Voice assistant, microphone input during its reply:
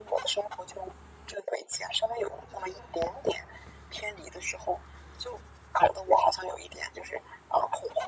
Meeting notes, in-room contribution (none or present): none